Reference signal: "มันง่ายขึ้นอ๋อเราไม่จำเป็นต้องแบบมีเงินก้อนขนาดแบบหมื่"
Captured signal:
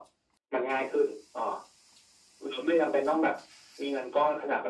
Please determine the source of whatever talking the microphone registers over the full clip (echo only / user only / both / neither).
echo only